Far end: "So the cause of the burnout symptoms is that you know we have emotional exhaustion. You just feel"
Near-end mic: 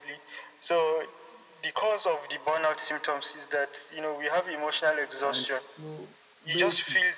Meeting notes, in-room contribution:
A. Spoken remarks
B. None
A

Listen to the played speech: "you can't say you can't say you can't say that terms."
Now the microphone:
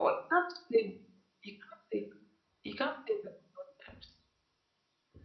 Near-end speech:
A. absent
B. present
A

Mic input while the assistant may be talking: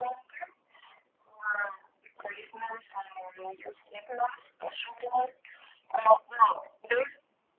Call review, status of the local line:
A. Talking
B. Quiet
B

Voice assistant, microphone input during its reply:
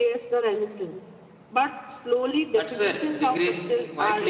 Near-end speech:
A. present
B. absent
A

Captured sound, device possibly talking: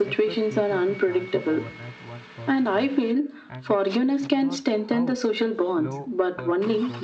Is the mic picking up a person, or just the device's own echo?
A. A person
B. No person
A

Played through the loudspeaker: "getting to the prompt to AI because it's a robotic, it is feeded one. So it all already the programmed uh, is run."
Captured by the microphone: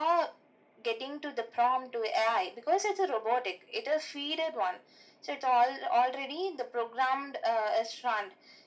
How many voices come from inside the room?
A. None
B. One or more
A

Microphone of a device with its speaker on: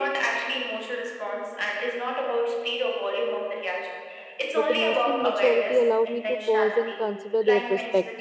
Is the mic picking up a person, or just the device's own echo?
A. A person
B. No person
A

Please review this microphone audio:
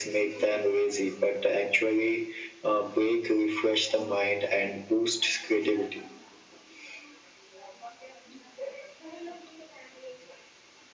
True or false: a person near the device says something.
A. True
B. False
B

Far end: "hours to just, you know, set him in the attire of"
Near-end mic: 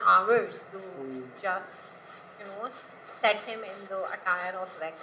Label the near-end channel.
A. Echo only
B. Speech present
B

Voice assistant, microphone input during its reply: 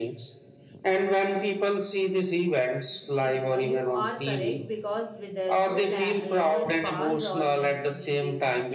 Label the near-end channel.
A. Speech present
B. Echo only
A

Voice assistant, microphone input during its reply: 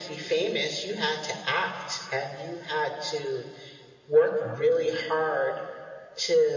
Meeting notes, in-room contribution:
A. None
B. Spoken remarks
A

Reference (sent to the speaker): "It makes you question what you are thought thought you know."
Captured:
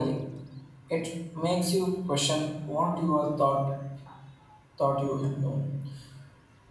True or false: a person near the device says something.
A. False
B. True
A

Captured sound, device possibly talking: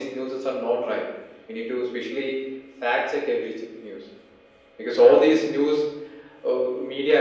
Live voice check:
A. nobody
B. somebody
A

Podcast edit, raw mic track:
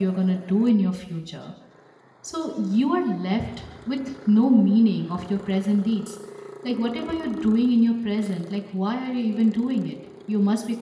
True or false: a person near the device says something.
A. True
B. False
A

